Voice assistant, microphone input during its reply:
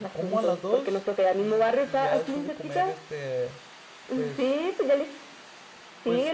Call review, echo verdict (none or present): present